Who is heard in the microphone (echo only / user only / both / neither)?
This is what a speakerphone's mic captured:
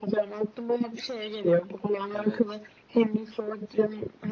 both